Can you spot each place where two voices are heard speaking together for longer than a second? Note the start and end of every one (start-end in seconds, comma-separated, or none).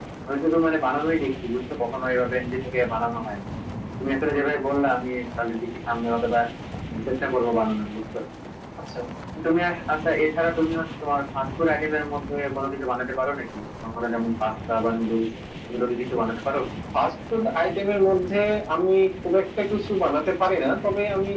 none